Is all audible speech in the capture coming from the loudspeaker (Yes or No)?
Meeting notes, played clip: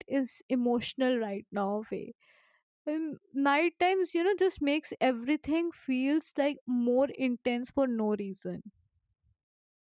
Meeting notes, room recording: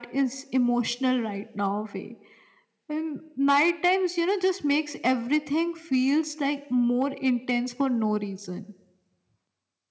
Yes